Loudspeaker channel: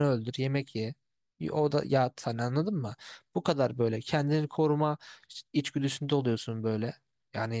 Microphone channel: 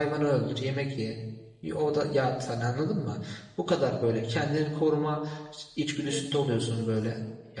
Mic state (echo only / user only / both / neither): both